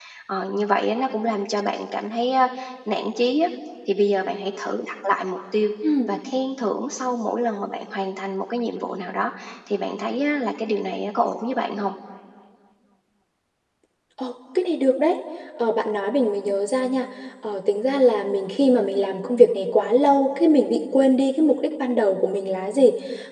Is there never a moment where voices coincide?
Yes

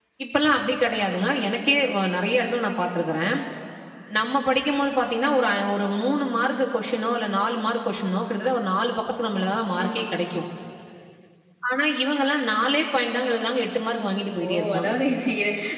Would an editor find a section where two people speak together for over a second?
No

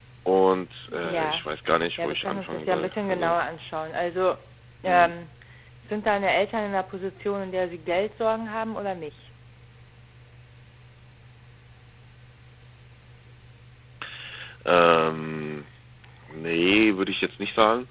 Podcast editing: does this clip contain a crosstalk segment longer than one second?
Yes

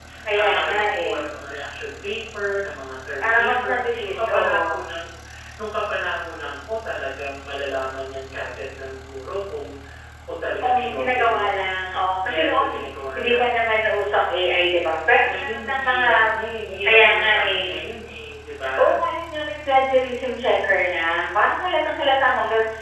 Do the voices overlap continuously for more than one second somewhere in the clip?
Yes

